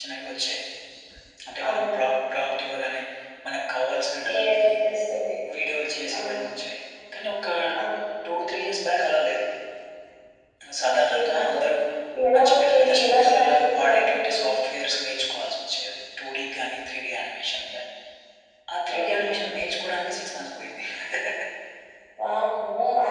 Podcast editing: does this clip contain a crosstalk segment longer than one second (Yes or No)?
Yes